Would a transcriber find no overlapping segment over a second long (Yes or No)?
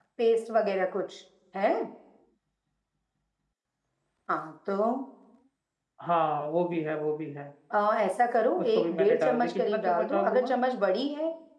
No